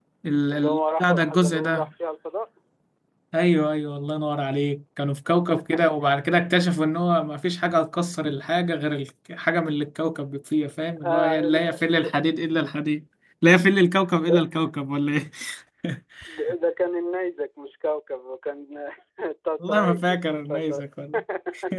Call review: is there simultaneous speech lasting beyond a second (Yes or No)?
Yes